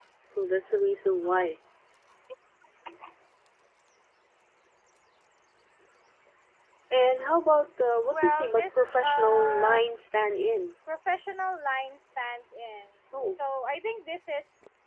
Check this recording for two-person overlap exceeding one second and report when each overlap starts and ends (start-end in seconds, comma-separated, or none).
8.1-9.8